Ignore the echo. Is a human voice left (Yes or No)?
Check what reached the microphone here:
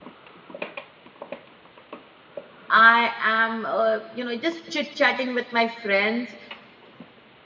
Yes